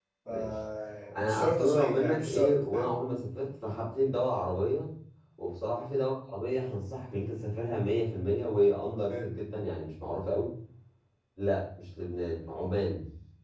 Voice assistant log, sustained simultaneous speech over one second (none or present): present